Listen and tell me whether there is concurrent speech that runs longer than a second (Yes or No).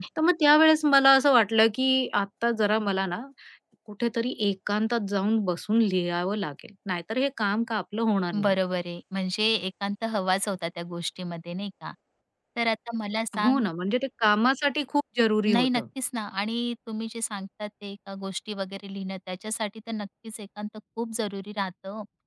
No